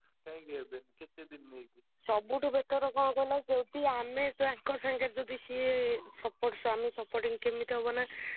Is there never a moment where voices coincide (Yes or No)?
Yes